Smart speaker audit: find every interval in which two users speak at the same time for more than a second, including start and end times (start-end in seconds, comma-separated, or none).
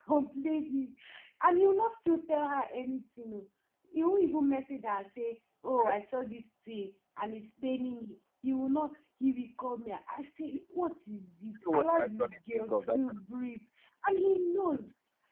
11.7-13.0